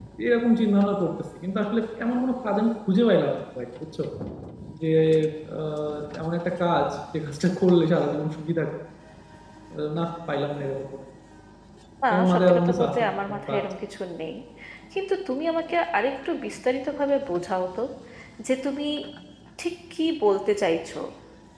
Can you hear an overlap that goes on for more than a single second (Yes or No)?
Yes